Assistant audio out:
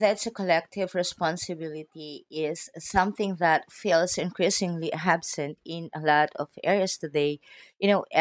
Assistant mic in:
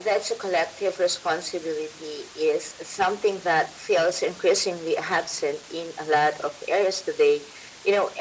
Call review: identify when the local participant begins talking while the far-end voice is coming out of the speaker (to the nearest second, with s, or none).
none